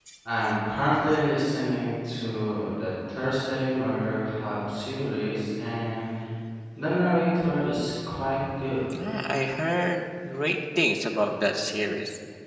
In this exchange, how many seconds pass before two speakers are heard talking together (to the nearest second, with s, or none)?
none